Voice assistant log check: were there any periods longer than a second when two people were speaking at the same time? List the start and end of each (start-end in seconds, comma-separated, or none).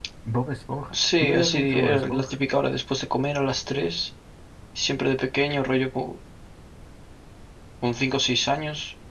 0.9-2.4